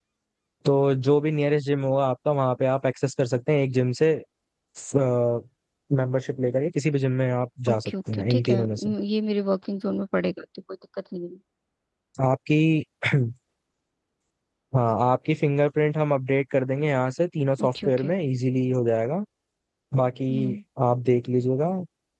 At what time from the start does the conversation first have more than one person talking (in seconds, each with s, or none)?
7.7 s